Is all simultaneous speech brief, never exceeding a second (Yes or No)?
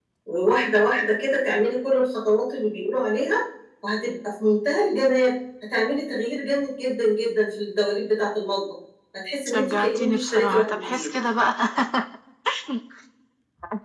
No